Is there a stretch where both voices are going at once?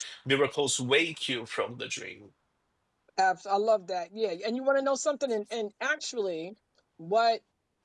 No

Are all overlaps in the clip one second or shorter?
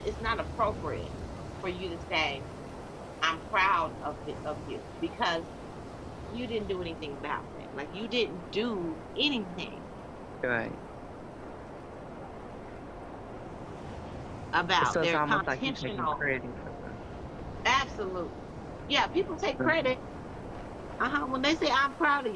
No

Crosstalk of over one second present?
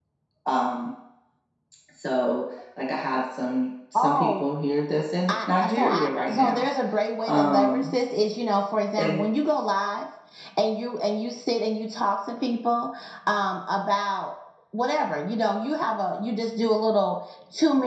Yes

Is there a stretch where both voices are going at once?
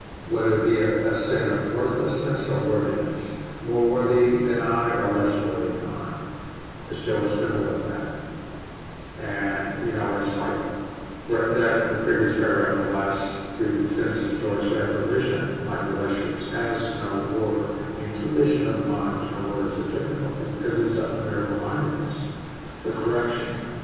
No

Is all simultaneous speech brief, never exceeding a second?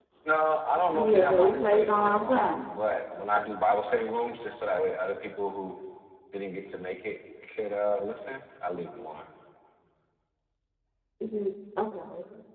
No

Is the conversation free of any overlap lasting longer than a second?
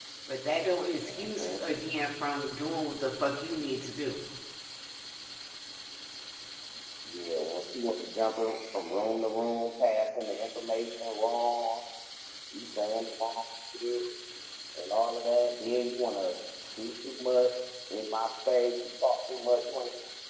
Yes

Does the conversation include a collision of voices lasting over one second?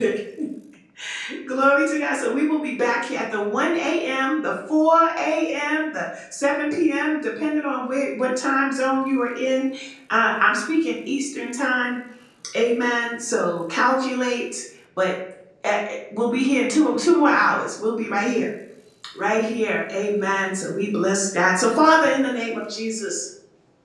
No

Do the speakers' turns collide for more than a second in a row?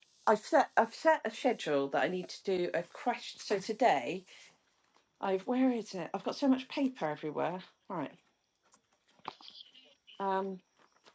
No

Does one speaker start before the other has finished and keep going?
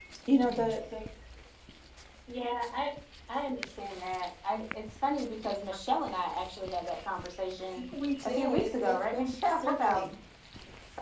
Yes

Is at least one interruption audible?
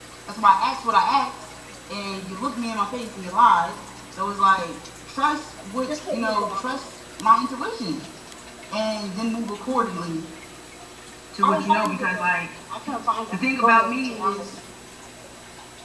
Yes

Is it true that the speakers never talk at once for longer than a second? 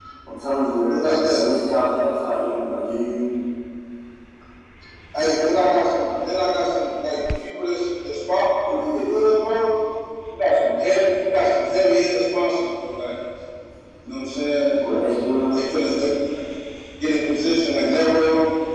Yes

